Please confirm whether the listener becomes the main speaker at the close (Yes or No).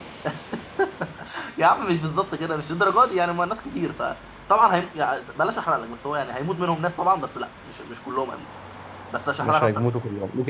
Yes